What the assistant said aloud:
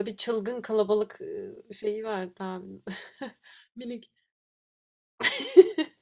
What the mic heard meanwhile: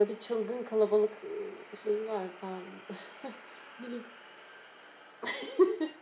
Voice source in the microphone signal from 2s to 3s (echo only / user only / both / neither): echo only